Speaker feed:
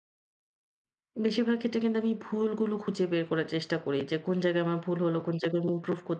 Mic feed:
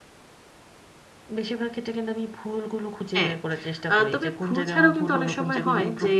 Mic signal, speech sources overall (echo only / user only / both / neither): both